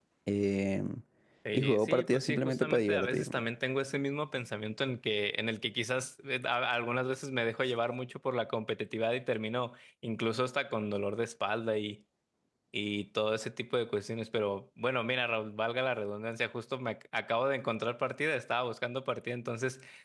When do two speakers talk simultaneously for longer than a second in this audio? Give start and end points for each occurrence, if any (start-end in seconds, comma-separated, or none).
1.5-3.4